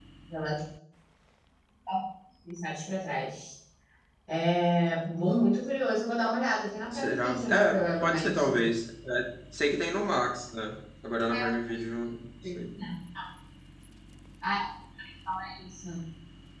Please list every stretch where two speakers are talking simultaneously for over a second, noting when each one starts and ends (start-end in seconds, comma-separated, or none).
6.9-8.6